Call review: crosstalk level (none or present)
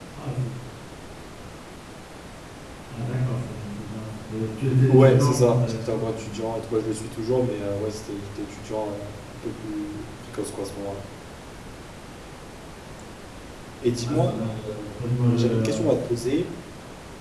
present